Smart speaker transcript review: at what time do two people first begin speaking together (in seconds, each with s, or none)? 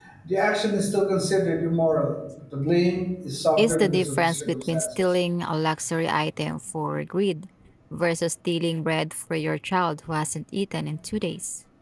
3.6 s